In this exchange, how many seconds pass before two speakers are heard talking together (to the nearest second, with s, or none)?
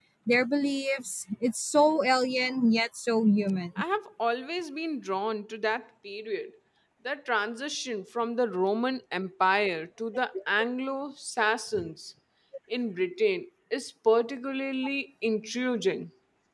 none